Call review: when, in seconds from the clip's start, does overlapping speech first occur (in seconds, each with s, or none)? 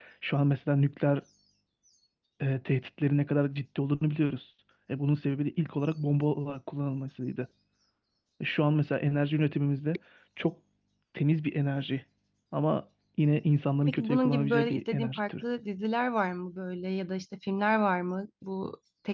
13.9 s